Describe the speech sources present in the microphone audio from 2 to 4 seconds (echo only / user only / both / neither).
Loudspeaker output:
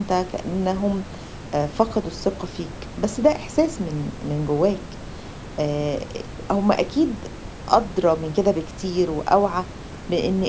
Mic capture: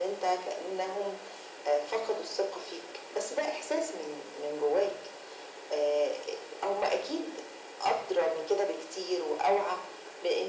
echo only